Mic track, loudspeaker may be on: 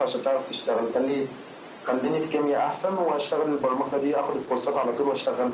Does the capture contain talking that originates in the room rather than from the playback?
No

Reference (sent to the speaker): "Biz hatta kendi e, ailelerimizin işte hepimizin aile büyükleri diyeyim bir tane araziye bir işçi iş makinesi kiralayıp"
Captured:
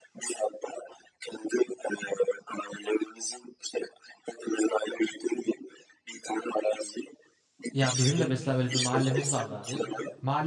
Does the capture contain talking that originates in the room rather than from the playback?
Yes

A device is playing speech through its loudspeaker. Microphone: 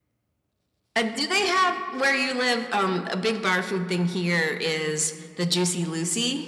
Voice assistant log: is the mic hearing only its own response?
Yes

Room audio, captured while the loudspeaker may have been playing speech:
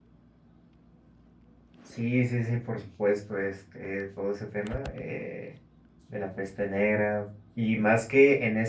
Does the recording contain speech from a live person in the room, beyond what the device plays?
Yes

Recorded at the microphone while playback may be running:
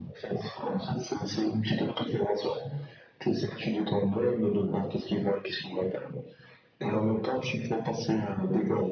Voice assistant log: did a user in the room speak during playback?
No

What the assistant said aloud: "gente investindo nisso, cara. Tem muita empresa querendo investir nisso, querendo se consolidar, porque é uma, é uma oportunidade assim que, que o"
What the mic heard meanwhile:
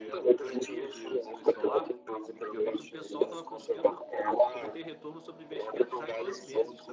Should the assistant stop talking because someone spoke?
Yes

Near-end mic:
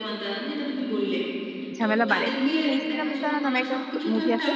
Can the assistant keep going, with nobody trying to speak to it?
No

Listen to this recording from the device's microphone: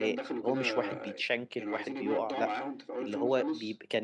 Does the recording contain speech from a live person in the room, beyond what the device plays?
Yes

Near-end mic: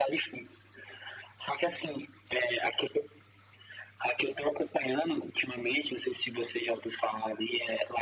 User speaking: No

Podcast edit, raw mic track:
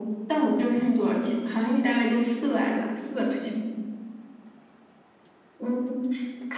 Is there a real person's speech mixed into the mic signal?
No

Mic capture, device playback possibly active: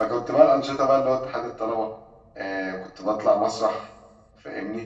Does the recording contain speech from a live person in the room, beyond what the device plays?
Yes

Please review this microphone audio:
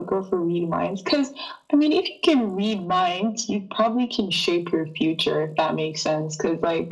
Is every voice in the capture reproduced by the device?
Yes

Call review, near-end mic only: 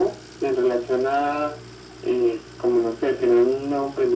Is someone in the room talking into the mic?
No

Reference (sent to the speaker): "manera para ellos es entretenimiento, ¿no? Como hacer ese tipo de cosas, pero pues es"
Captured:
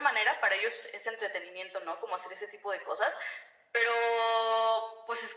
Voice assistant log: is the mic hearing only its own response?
Yes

